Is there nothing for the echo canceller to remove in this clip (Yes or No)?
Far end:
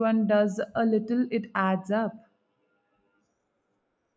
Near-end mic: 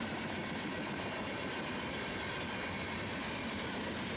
Yes